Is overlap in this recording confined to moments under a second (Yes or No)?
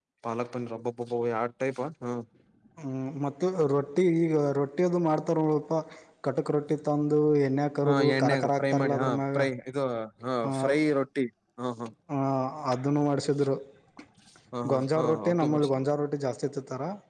No